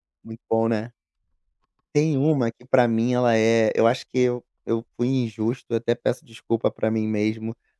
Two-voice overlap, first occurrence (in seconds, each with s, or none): none